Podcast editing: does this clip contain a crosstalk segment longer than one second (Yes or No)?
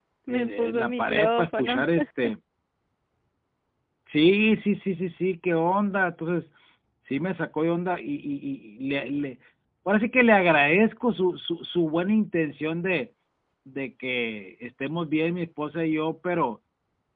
Yes